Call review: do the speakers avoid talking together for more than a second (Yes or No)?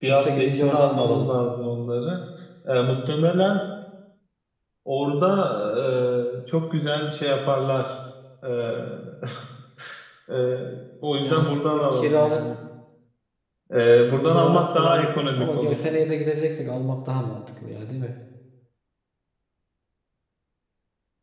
No